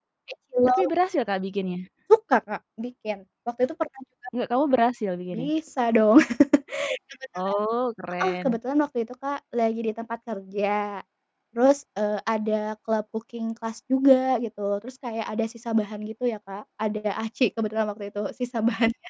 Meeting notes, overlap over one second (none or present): none